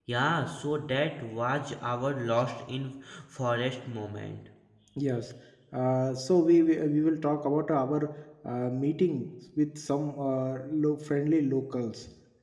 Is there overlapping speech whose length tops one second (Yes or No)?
No